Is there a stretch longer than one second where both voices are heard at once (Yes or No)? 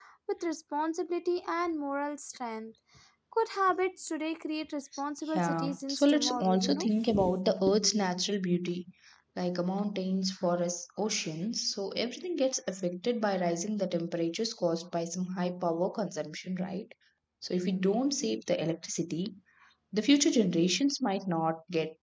Yes